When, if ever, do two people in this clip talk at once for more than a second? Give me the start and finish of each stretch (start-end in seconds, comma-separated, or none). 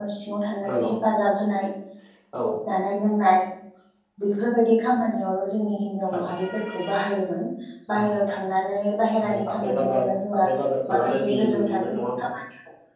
9.2-10.5, 10.9-12.3